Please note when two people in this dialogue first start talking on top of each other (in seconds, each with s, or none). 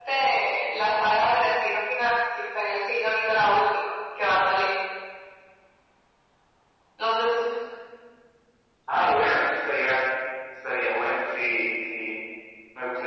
none